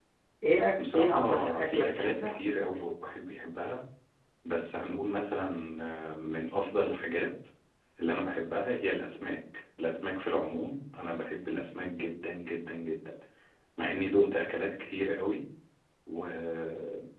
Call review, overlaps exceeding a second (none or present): present